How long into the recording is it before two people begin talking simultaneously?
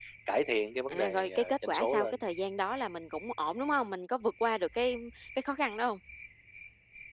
0.9 s

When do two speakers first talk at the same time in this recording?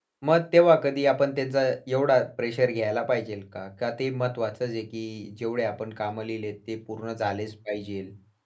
none

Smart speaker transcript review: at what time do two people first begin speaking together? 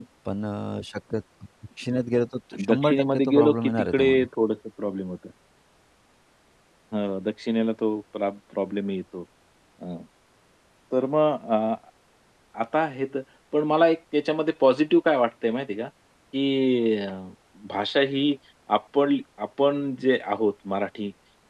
2.5 s

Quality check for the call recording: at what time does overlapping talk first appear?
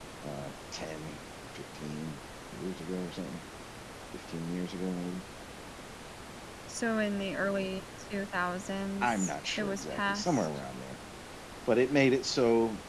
9.0 s

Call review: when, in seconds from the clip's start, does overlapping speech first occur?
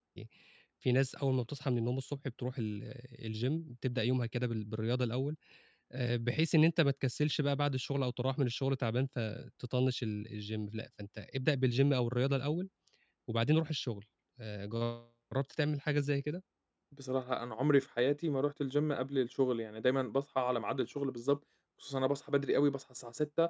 none

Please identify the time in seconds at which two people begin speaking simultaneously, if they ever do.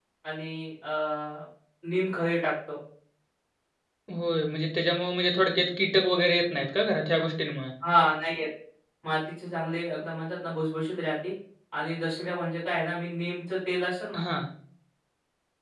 none

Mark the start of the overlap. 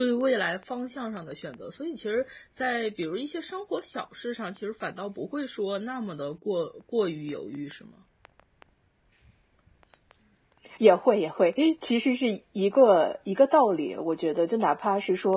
none

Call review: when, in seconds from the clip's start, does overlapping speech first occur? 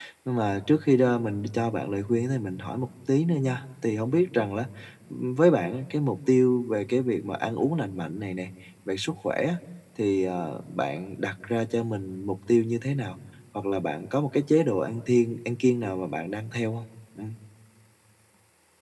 none

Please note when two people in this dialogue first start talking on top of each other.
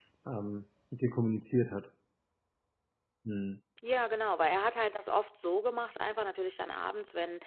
none

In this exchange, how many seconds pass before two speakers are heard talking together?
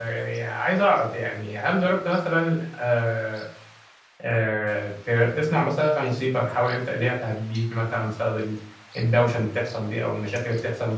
none

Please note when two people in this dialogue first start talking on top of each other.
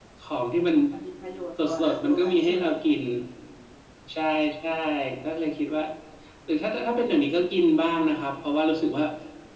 1.6 s

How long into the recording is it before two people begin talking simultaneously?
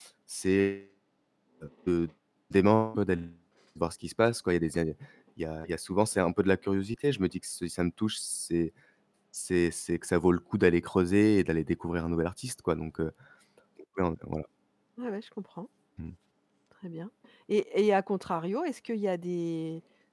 none

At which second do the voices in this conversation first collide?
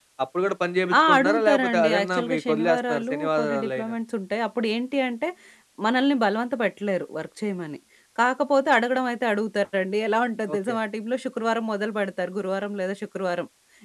1.1 s

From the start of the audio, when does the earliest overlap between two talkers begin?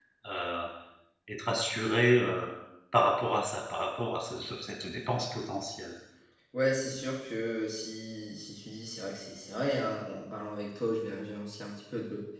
none

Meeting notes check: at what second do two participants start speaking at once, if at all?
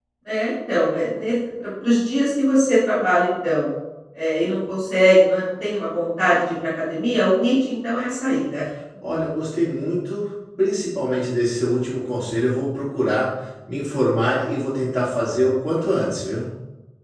none

